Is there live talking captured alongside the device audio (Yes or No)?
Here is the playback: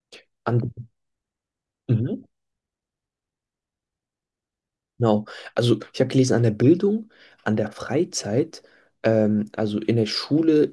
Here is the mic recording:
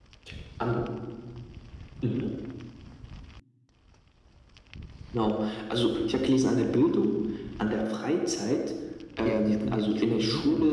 Yes